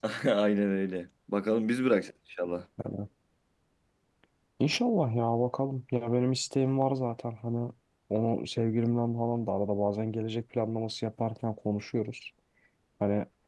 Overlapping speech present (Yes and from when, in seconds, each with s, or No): No